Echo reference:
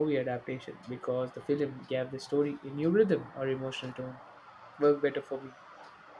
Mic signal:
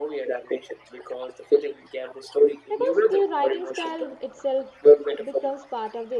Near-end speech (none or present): present